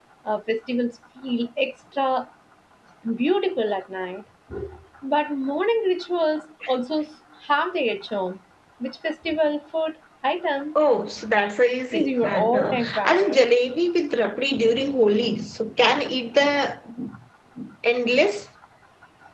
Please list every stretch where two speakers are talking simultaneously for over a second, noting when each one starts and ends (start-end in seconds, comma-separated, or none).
11.9-13.4